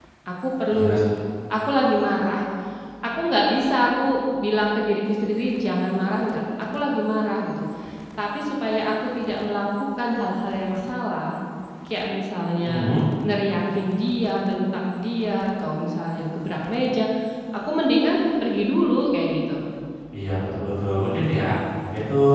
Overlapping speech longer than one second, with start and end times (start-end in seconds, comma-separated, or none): none